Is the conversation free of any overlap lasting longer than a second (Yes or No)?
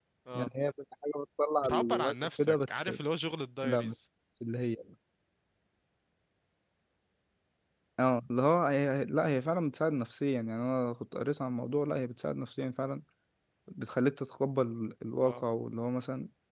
No